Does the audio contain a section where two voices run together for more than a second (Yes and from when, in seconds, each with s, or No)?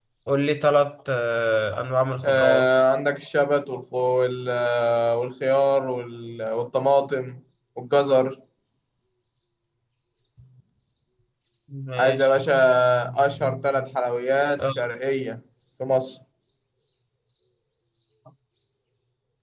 No